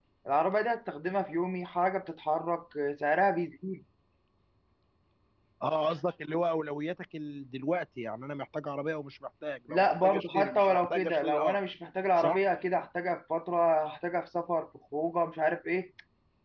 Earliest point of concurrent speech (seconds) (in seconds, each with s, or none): 9.7 s